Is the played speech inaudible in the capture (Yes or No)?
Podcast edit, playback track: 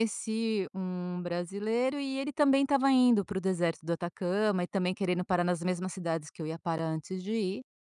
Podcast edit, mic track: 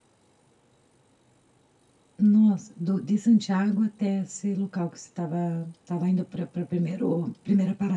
Yes